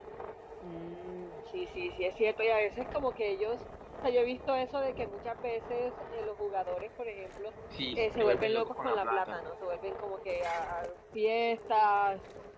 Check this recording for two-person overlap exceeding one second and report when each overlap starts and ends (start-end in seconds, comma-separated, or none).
8.0-9.4